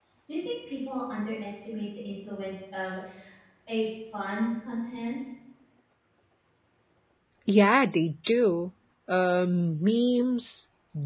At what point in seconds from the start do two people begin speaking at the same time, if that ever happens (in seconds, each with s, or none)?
none